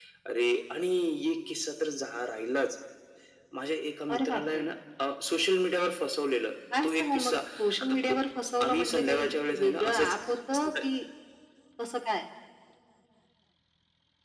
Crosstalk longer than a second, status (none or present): present